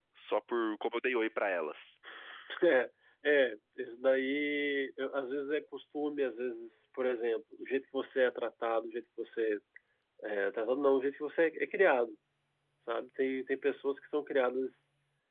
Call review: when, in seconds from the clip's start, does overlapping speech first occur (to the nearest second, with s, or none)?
none